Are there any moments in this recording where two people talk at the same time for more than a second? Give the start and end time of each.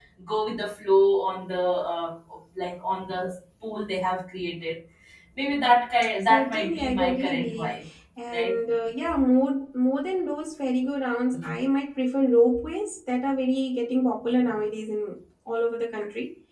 6.2-7.7

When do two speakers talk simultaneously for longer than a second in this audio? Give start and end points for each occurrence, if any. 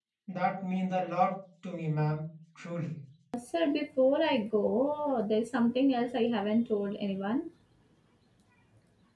none

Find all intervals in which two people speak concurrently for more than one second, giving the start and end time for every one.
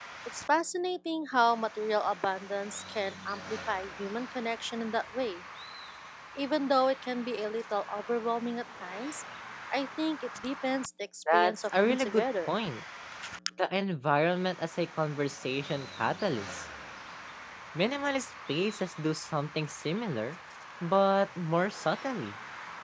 11.3-12.5

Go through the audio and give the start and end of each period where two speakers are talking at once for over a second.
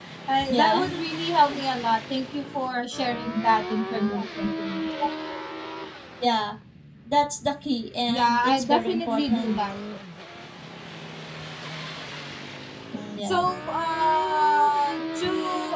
8.1-9.6

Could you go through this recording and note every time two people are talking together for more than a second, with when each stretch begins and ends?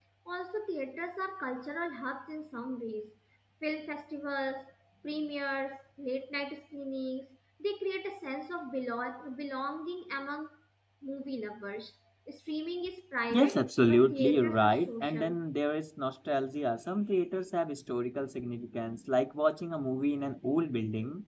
13.3-15.4

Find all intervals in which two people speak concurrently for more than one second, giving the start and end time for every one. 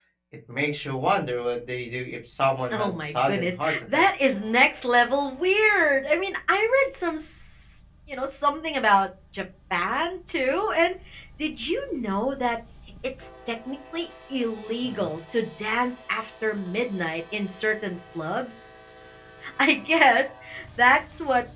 2.7-4.0

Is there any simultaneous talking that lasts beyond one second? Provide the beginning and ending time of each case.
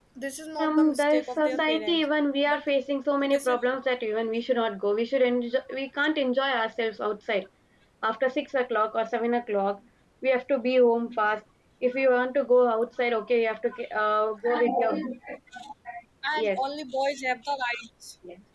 0.6-2.0

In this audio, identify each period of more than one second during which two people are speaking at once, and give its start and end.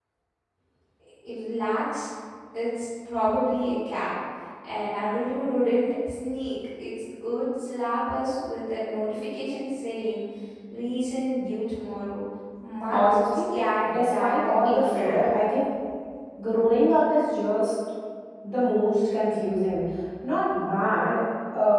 13.9-15.2

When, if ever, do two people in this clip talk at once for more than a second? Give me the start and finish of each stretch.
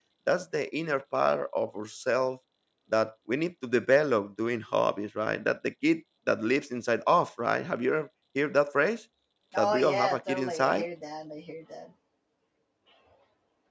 9.6-10.8

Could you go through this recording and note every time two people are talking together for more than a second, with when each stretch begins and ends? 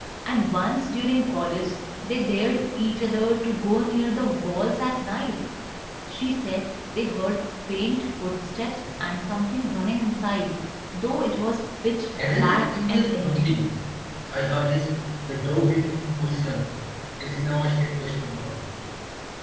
12.2-13.6

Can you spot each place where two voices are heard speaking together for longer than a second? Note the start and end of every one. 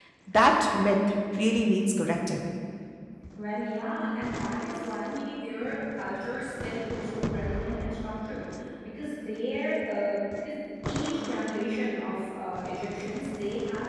none

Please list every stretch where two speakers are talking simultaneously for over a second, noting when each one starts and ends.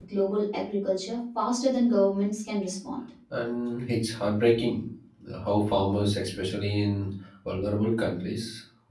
none

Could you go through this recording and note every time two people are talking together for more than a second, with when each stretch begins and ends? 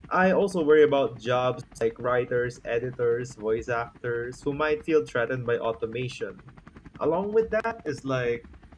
none

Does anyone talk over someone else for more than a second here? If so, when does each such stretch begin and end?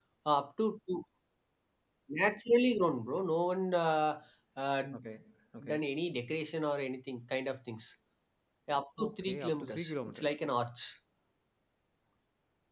9.0-10.3

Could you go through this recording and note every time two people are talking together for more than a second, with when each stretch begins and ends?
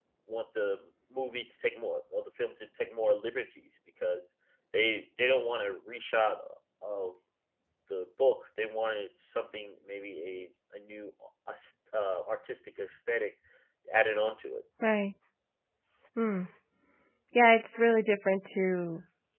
none

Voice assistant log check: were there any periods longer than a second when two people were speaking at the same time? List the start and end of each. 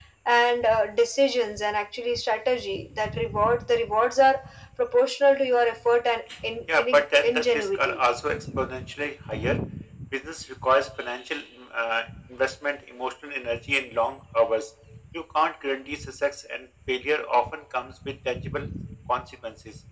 6.8-8.0

